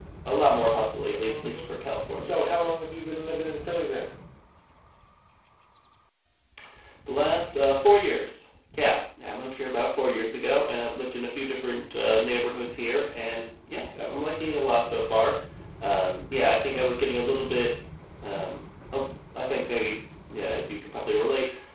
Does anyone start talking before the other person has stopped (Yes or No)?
Yes